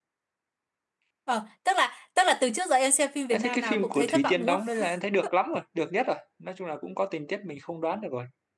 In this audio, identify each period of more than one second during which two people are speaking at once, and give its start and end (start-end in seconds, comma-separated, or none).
3.3-4.8